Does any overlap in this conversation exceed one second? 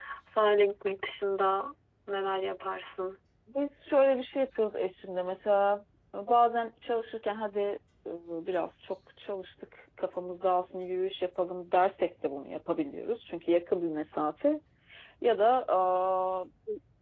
No

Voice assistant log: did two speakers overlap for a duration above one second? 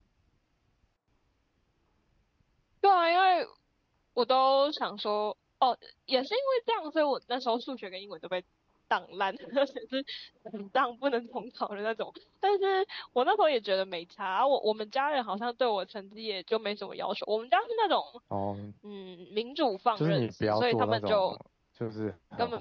Yes, from 19.9 s

